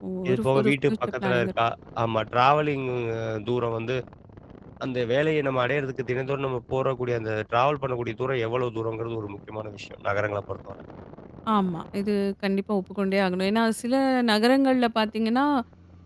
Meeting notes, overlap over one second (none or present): present